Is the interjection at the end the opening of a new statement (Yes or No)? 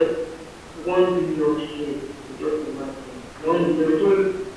Yes